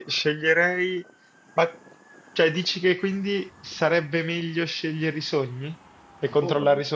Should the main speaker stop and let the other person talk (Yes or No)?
Yes